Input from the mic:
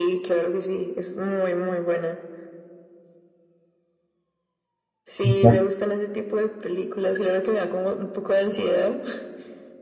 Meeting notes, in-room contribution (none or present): present